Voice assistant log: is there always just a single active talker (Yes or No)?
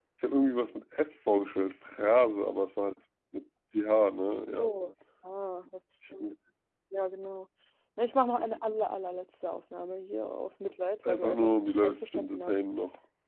No